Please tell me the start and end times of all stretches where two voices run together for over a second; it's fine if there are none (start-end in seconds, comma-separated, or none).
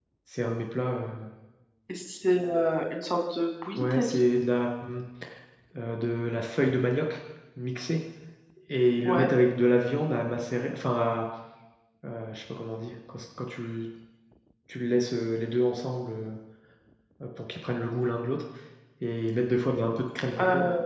none